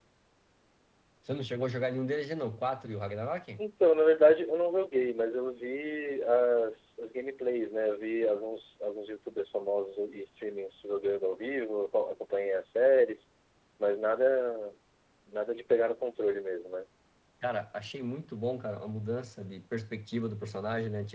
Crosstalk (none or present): none